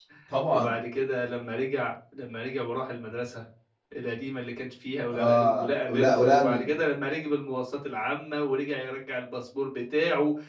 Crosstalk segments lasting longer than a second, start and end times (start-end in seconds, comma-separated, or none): 5.1-6.7